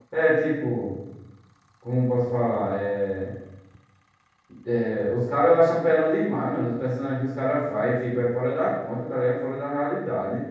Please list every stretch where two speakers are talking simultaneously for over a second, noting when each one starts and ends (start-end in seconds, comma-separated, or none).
none